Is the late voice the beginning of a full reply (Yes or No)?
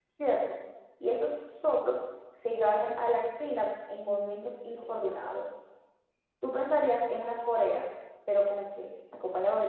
Yes